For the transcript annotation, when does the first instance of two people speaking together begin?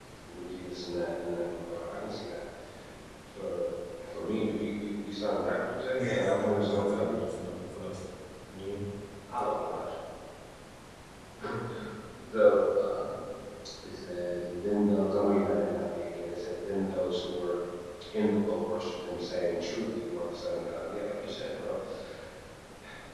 6.0 s

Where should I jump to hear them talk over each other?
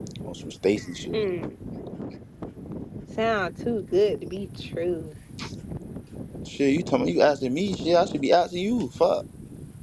none

